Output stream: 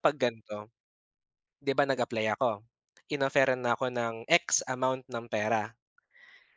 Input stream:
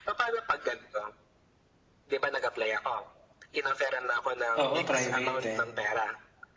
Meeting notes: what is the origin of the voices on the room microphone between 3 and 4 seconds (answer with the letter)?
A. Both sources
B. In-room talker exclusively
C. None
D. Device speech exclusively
D